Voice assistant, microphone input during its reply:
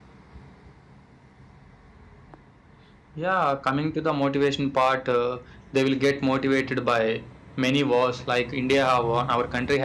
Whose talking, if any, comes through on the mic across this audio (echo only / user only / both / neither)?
user only